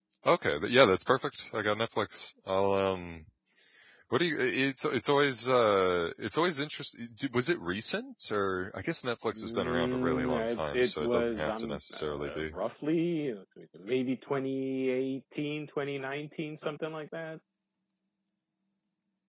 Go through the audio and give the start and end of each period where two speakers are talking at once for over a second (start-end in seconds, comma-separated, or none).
9.3-12.5